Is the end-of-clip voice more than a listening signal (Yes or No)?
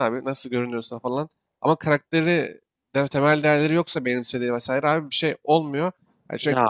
No